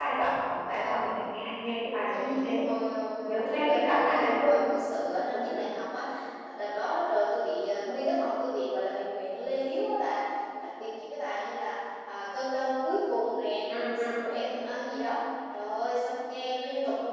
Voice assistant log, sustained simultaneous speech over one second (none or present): present